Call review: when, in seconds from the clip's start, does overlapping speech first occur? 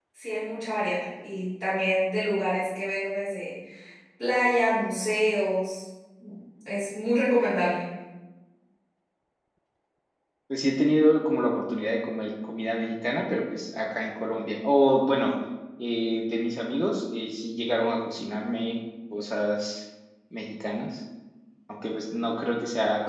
none

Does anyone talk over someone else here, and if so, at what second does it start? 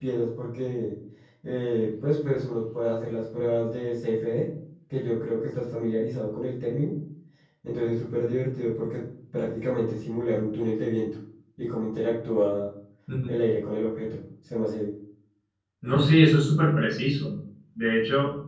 none

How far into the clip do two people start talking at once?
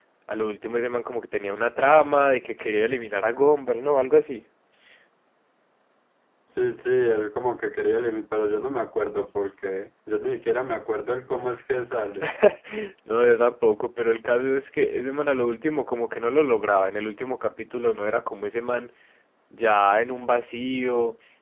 none

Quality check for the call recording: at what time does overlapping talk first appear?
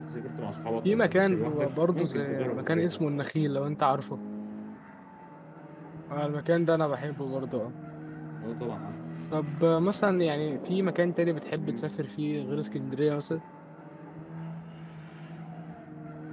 0.8 s

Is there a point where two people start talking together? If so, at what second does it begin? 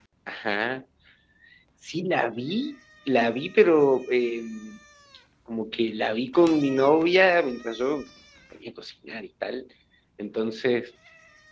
none

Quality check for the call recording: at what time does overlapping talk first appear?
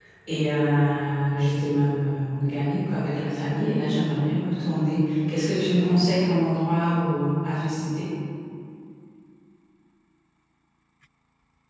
none

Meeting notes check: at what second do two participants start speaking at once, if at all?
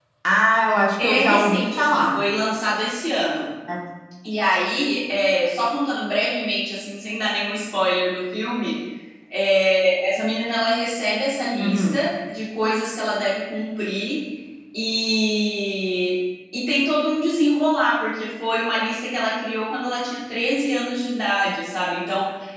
1.0 s

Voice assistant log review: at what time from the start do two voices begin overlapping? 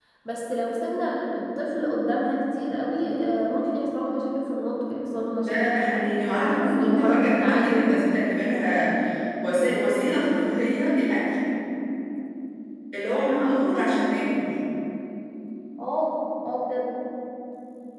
5.4 s

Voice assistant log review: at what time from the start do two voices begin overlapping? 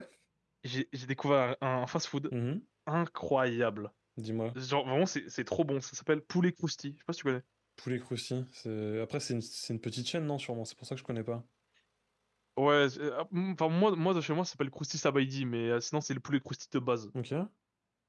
none

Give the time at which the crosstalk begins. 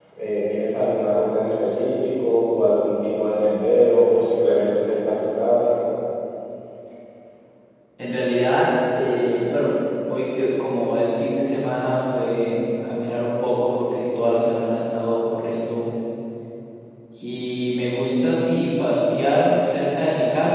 none

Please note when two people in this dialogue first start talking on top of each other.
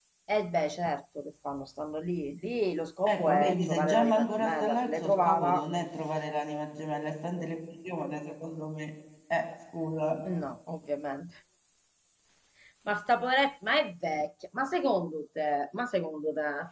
3.1 s

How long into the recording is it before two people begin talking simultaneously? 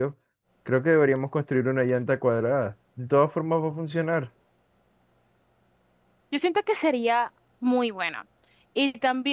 none

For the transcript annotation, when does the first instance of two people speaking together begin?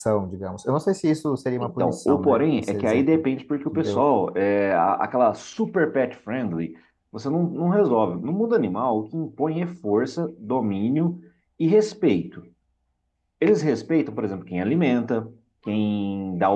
1.6 s

